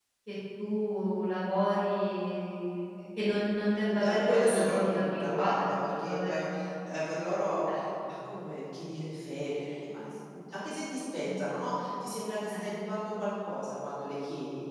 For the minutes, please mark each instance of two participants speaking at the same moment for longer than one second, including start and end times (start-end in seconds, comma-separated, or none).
3.9-6.4